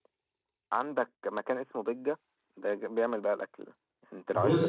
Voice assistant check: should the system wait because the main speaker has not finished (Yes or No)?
No